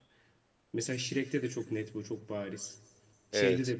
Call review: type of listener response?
listening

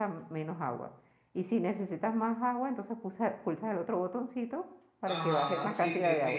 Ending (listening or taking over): taking over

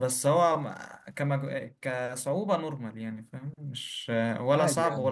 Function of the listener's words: taking over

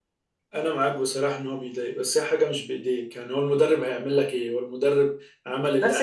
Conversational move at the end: taking over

